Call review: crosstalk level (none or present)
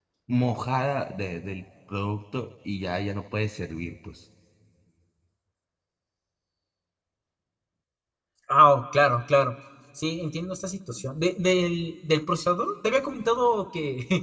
none